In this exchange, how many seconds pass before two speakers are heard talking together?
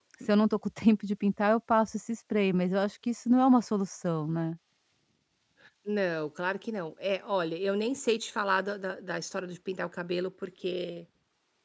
none

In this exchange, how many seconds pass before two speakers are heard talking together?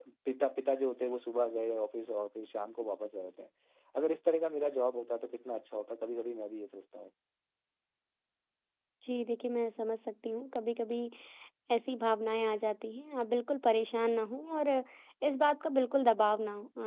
none

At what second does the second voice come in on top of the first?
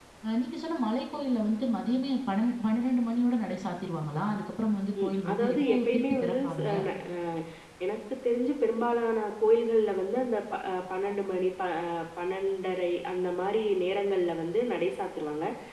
5.0 s

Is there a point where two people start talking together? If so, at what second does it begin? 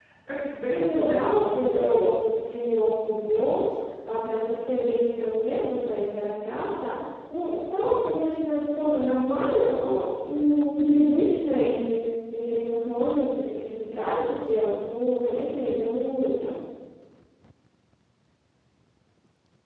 0.7 s

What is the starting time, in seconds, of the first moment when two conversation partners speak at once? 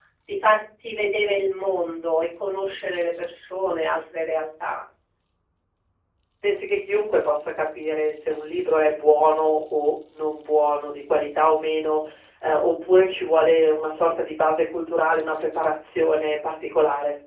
none

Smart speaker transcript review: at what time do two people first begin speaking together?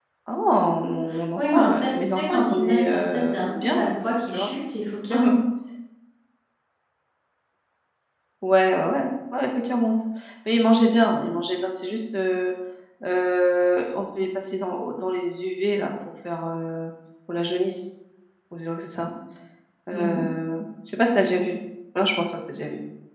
1.4 s

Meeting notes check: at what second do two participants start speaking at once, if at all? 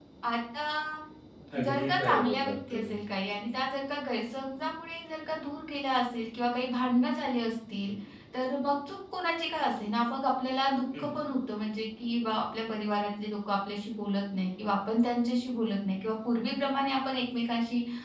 1.6 s

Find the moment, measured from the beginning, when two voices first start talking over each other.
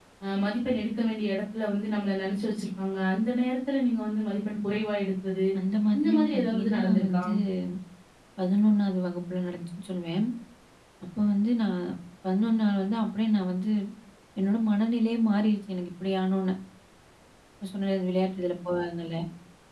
6.0 s

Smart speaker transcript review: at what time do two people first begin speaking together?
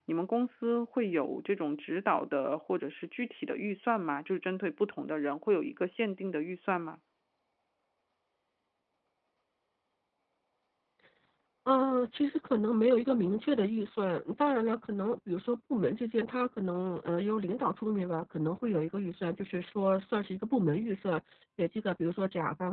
none

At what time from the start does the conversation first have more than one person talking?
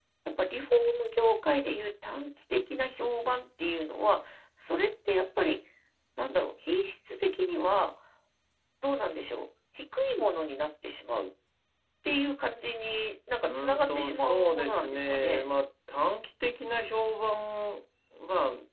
13.4 s

